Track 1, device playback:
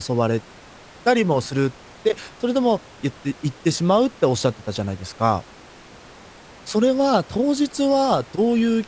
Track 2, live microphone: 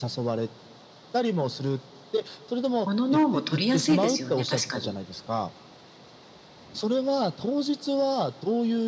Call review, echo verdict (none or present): present